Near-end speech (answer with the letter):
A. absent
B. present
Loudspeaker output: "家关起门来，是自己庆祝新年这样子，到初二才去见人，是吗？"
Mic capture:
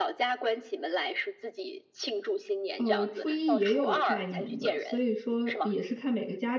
B